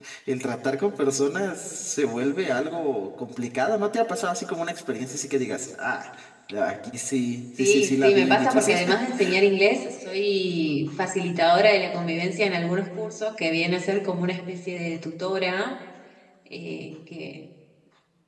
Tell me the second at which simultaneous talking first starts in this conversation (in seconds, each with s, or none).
7.6 s